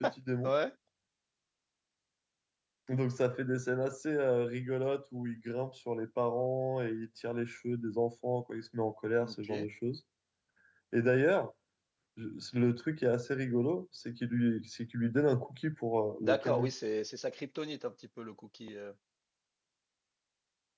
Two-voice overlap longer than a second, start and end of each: none

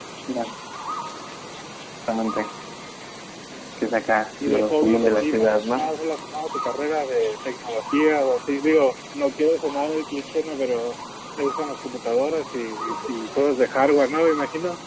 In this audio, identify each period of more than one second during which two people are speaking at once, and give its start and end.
4.5-5.9

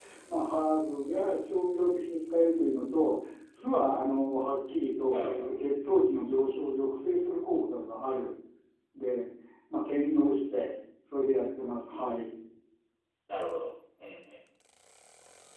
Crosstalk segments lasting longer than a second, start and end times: none

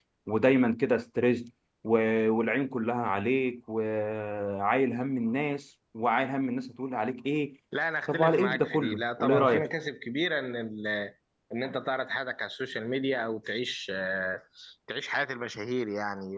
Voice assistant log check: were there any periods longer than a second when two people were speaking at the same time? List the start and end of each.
8.1-9.7

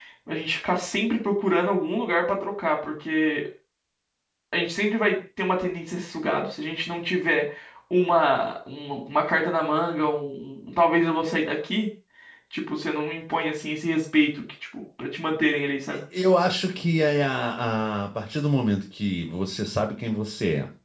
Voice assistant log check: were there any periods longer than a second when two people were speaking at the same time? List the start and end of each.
none

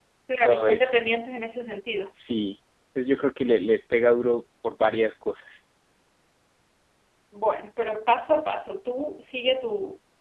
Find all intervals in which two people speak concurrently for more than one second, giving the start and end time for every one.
none

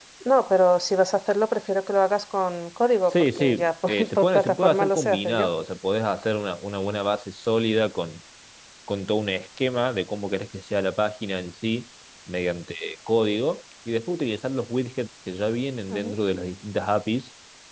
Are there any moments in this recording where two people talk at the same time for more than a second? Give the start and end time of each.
3.1-5.5

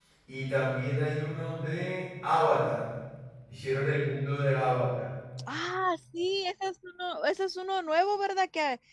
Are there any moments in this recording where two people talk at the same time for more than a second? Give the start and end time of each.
none

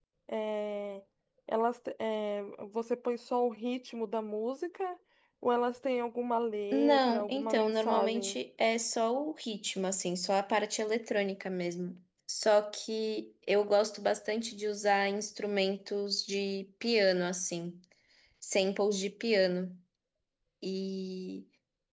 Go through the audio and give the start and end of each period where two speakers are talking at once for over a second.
6.7-8.4

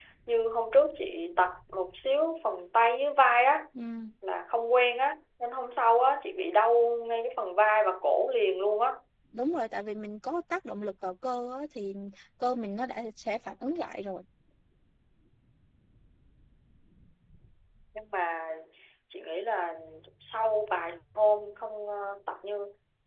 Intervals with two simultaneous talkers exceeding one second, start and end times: none

